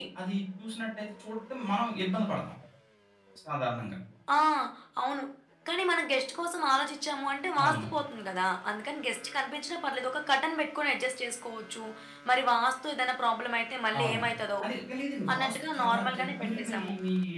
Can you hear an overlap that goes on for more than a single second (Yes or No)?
Yes